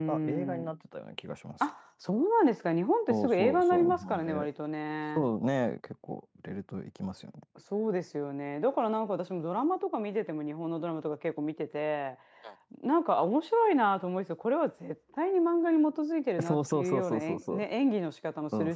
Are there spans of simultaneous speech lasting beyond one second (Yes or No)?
Yes